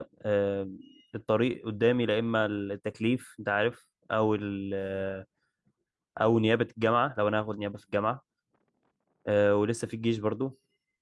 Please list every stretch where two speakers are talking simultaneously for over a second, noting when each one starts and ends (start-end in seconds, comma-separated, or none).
none